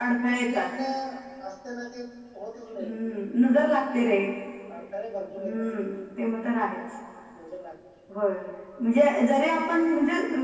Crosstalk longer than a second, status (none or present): none